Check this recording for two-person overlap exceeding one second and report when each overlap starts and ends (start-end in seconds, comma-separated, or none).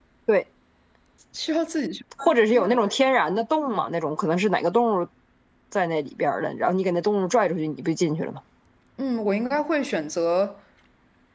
none